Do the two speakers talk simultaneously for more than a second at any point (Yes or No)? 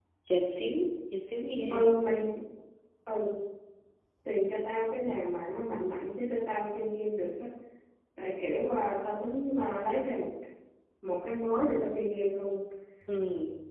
No